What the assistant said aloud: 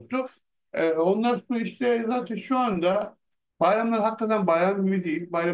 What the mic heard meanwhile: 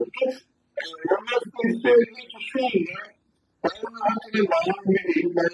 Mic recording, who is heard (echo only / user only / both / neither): echo only